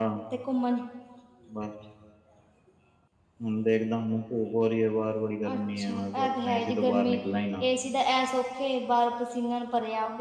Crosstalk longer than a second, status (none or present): present